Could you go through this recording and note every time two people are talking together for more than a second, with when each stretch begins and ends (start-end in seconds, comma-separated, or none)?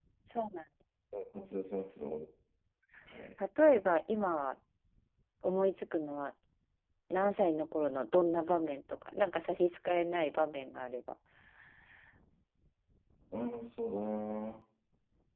none